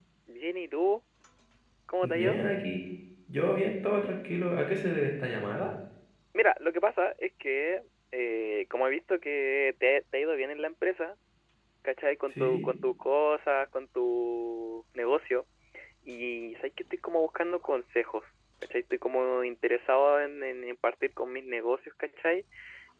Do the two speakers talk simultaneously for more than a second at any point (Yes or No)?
No